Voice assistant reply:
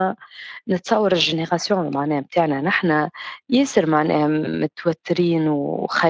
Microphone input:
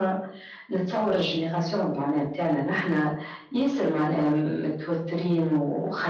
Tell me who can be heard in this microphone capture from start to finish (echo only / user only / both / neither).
echo only